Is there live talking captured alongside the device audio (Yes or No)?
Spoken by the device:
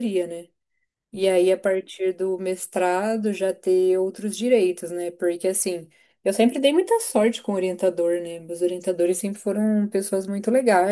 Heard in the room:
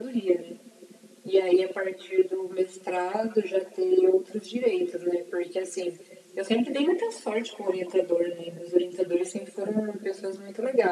No